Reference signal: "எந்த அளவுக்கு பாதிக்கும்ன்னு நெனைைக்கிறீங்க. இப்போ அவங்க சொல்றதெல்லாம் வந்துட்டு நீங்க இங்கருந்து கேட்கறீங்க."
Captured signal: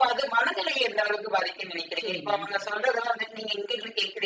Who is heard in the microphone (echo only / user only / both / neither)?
both